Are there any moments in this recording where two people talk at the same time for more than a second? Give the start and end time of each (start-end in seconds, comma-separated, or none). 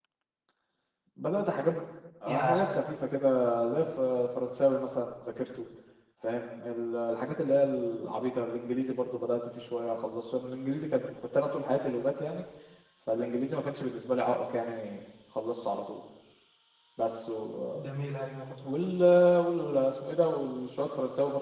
none